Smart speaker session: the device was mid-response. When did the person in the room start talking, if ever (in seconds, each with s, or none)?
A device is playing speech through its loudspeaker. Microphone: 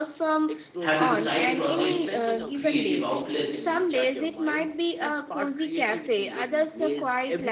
0.8 s